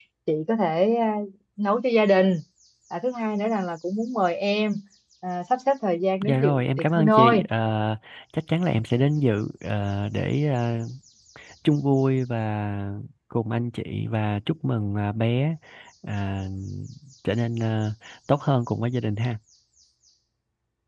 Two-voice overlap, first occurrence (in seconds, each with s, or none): 6.2 s